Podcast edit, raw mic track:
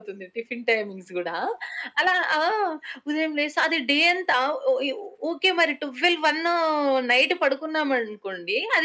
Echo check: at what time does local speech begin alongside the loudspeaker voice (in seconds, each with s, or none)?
none